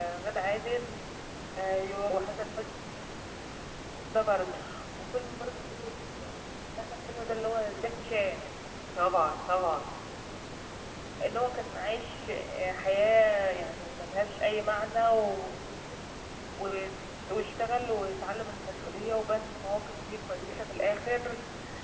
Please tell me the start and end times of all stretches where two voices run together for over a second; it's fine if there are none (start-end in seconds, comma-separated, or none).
none